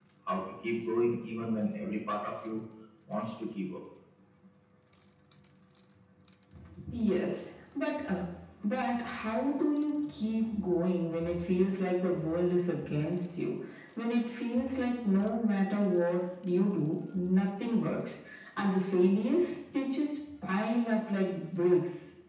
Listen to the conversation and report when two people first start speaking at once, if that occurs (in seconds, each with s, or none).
none